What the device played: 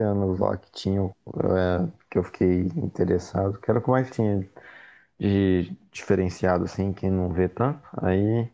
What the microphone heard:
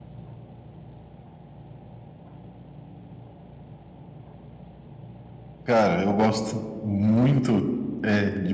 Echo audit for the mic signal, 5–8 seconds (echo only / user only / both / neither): user only